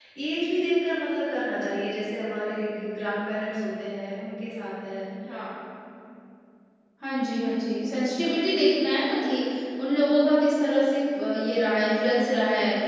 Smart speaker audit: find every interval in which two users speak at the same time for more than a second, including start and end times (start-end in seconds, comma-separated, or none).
none